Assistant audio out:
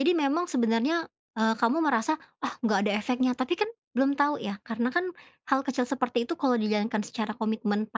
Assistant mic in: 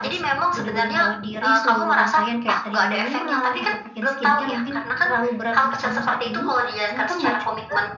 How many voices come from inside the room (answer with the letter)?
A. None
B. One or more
B